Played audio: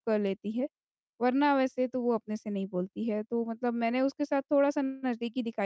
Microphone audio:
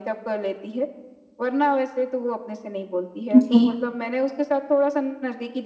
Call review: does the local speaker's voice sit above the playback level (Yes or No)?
Yes